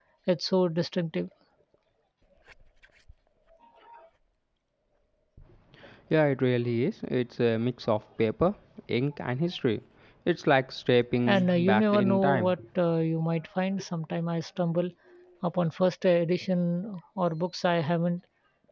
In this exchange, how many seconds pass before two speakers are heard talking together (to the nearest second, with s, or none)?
11 s